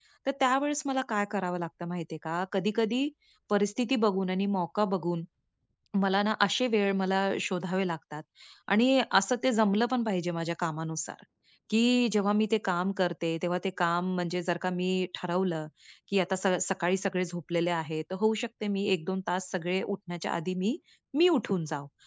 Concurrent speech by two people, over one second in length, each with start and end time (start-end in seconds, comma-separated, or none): none